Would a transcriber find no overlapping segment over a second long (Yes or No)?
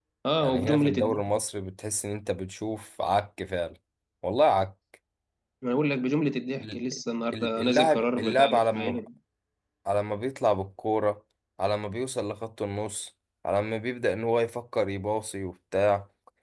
No